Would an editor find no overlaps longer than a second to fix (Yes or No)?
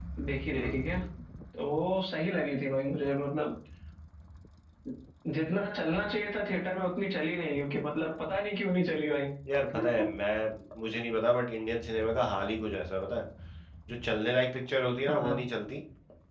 Yes